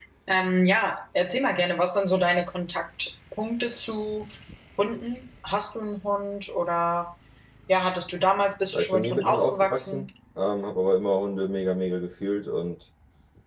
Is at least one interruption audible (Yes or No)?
Yes